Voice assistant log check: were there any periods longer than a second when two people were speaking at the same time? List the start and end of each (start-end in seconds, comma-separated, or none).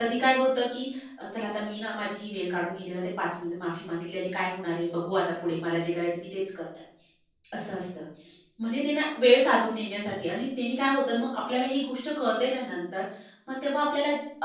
none